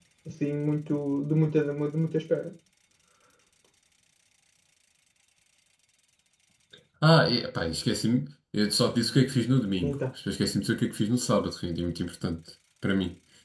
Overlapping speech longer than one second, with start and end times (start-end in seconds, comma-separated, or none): none